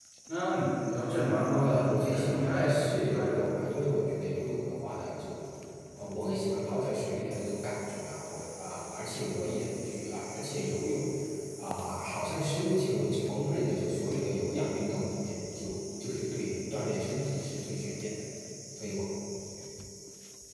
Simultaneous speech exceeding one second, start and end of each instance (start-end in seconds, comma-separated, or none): 1.6-3.3